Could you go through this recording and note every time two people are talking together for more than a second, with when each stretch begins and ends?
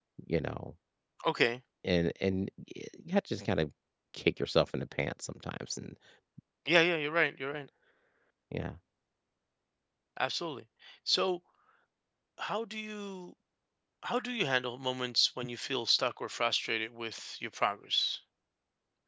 none

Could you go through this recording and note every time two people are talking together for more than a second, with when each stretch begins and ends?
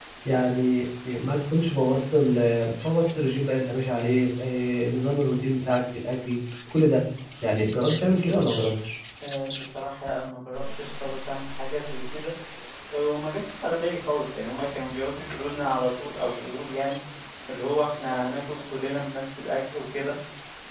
none

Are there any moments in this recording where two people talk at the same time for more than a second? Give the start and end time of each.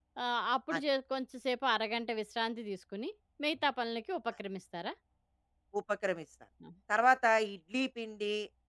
none

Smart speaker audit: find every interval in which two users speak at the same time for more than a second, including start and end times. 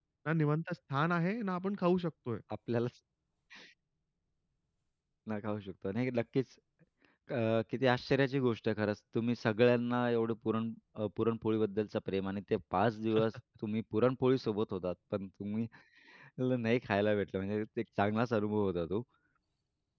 none

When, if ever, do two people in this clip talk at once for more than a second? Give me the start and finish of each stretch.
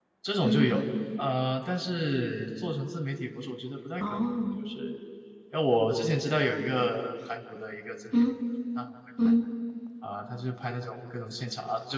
none

